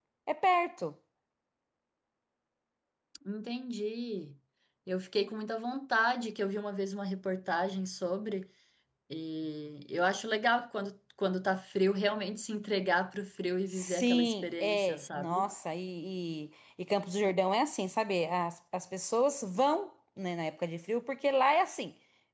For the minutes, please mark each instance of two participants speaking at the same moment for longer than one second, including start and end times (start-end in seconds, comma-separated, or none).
13.7-15.5